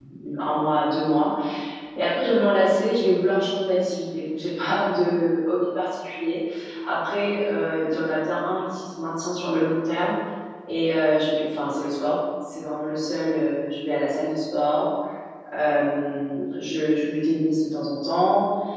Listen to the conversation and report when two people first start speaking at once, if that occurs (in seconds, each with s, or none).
none